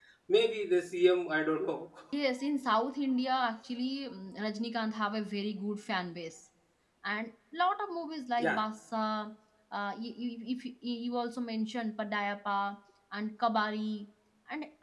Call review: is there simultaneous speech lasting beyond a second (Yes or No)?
No